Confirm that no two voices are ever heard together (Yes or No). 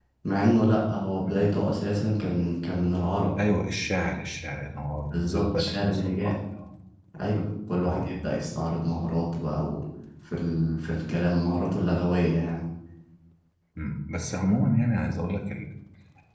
No